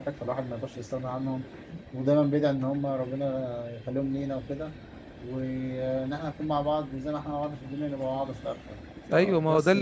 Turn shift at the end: Yes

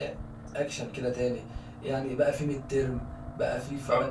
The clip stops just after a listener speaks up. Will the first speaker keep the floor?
Yes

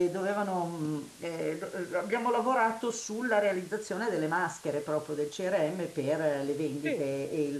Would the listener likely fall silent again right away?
Yes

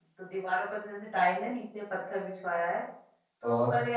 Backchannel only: Yes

